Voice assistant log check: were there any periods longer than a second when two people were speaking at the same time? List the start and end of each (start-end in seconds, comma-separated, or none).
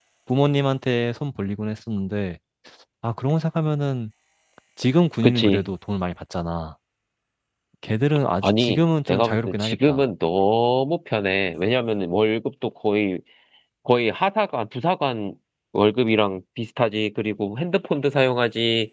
8.4-10.0